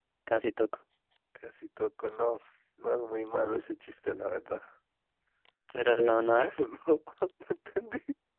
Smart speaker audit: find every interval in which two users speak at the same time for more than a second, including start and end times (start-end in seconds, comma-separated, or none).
none